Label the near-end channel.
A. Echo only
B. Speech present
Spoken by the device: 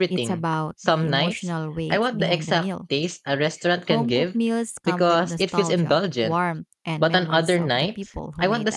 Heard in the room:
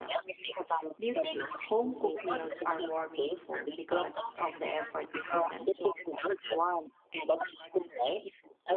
B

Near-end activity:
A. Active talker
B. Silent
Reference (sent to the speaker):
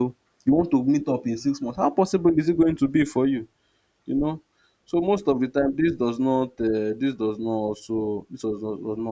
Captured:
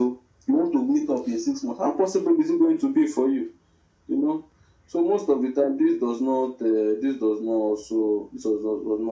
B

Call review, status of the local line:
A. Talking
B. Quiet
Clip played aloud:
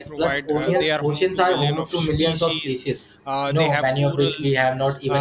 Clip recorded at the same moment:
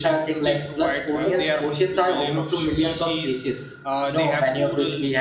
B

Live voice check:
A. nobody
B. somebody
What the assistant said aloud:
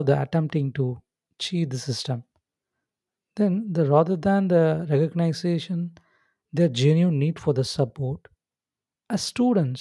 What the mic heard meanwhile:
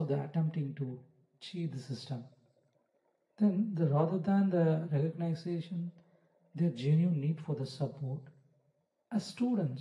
A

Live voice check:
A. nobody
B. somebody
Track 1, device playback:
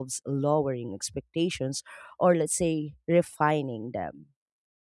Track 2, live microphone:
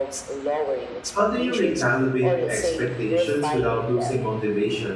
B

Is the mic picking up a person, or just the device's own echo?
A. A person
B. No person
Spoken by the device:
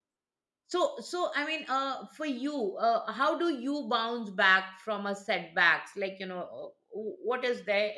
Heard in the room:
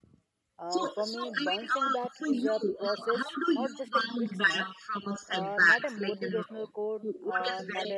A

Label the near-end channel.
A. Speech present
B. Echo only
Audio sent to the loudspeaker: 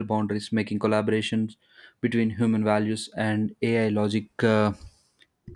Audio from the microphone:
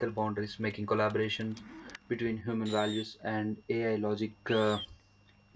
B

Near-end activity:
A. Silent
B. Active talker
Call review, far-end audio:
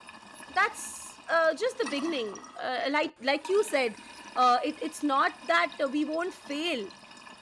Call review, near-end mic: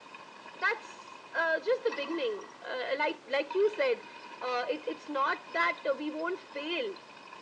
A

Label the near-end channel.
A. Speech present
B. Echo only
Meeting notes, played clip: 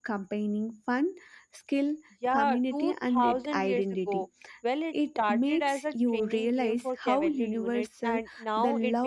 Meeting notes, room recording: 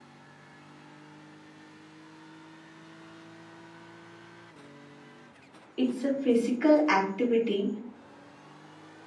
A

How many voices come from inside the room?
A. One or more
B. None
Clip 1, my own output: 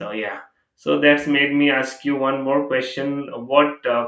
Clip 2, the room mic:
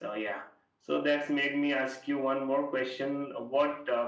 B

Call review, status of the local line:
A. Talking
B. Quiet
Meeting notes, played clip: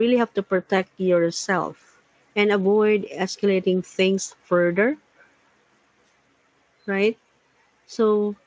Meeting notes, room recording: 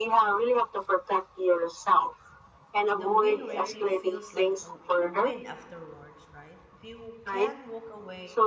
A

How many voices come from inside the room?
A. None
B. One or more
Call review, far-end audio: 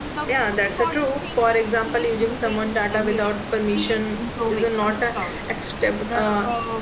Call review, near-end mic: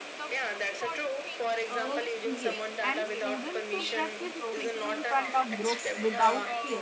B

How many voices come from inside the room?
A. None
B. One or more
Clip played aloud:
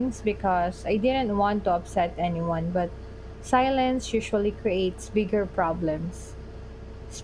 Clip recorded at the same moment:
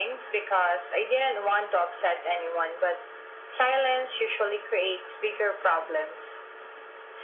A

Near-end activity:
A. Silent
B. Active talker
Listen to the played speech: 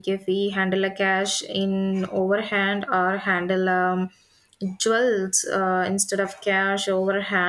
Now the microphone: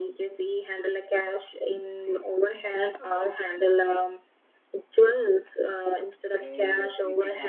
B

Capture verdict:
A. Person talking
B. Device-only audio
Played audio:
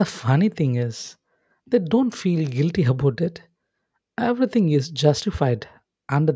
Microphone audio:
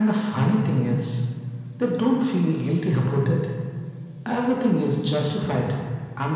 B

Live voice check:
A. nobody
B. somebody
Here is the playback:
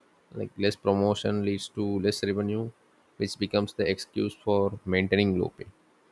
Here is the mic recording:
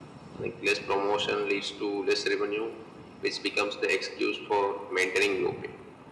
A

